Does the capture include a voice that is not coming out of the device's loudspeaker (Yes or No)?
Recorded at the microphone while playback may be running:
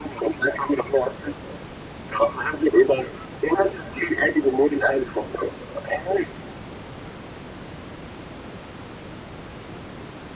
No